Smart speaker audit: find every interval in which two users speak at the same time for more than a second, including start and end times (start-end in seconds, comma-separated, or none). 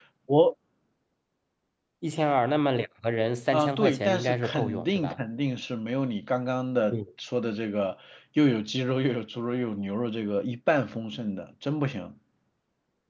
3.5-5.2